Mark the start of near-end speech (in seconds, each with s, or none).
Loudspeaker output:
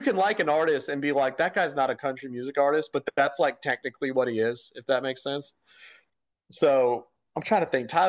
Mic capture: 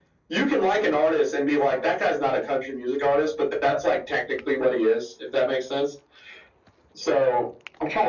none